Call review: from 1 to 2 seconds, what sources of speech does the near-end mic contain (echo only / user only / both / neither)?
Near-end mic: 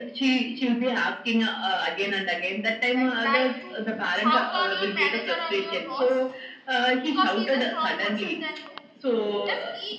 echo only